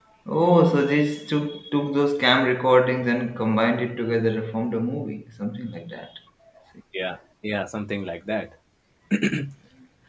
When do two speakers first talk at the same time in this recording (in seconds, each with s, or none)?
none